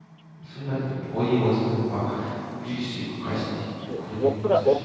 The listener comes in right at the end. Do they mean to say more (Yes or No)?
Yes